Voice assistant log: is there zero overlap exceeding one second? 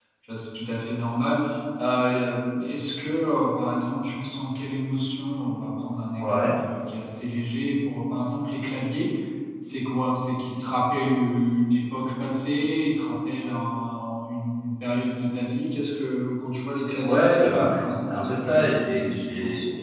No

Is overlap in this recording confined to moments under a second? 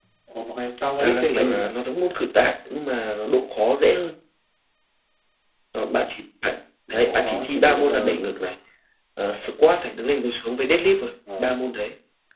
No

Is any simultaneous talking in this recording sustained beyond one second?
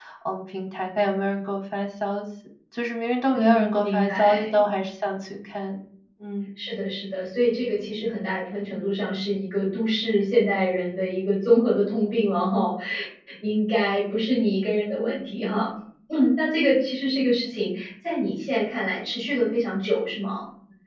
Yes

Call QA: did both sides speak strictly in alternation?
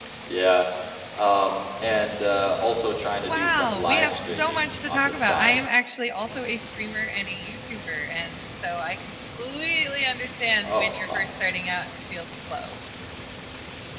No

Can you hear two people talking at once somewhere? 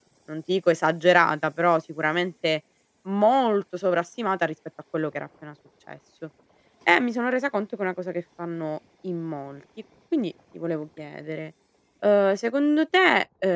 No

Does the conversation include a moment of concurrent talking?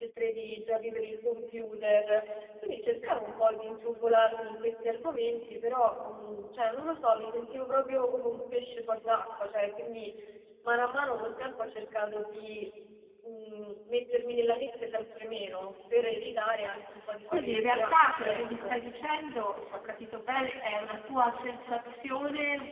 Yes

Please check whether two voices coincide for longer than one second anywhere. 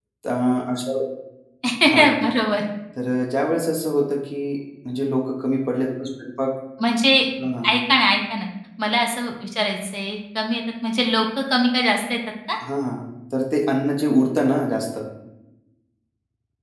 No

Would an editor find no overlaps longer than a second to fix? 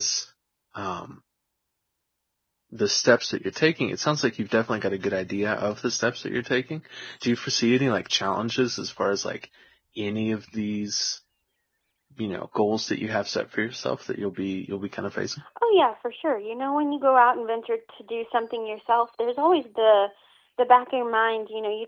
Yes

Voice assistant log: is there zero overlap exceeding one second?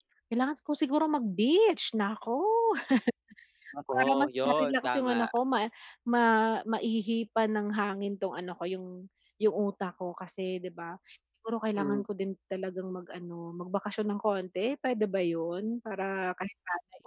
No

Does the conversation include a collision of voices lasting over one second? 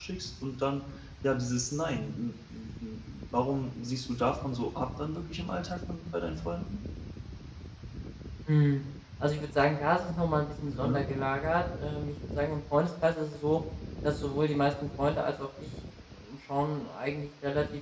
No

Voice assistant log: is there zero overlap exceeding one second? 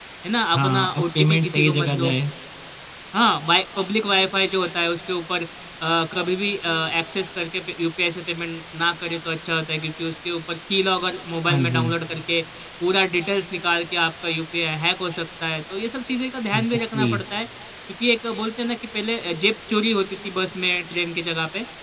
No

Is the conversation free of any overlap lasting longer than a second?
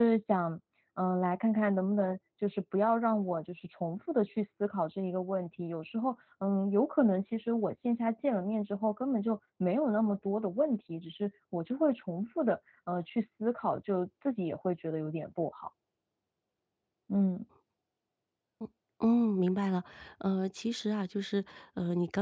Yes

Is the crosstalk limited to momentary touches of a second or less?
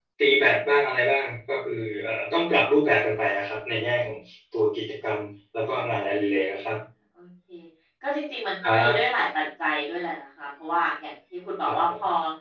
Yes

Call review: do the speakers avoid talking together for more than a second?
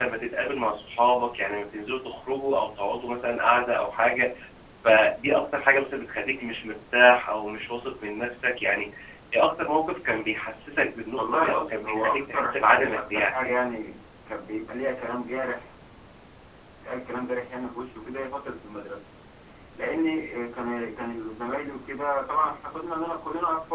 No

